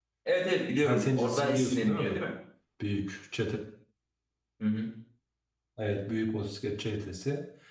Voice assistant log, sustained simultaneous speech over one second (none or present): present